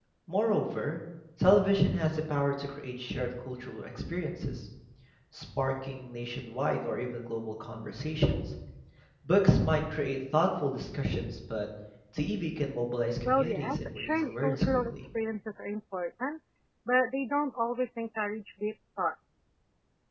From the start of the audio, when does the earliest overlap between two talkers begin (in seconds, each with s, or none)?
13.2 s